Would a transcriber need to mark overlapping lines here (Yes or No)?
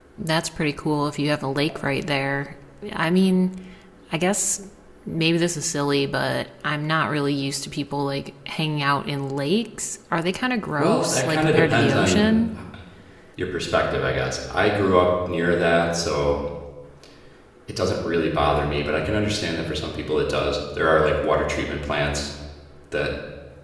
Yes